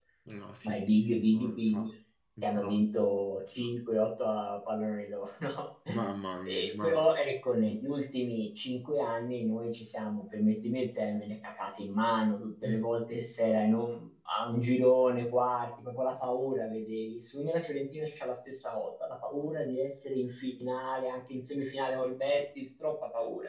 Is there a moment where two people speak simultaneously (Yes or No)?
Yes